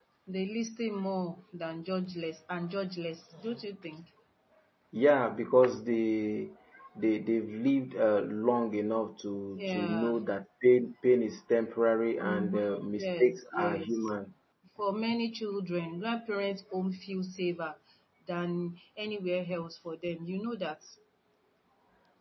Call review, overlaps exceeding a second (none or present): present